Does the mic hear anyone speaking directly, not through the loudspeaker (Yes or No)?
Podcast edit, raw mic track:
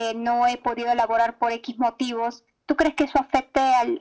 No